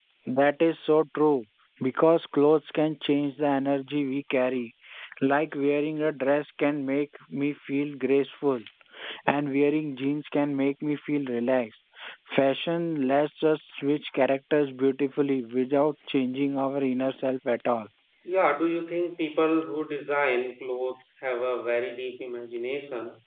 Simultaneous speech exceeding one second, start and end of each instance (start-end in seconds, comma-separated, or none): none